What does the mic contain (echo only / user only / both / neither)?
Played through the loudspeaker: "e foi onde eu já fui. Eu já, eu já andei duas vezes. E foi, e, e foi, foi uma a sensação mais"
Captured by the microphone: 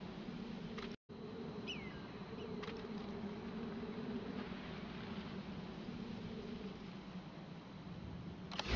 neither